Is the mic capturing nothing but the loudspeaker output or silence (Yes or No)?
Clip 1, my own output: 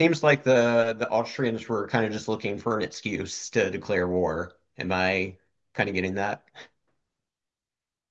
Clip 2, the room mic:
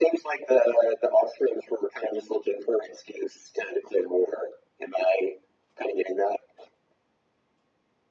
Yes